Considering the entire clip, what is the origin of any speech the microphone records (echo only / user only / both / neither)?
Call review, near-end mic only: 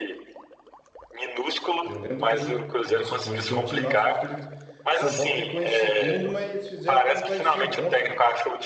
both